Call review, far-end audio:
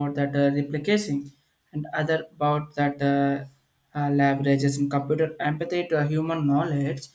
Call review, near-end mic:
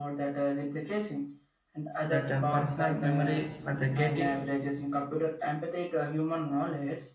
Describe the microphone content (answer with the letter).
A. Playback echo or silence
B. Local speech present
B